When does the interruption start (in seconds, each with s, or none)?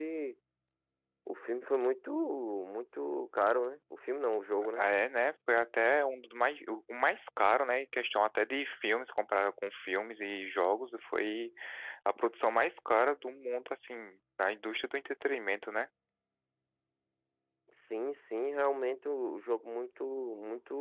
none